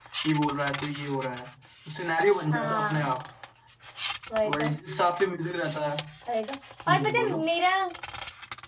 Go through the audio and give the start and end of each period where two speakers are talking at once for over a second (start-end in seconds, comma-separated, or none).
none